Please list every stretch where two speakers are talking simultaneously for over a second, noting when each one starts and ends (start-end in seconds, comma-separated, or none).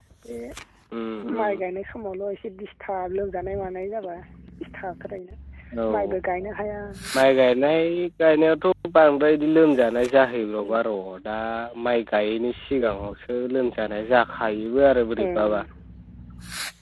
none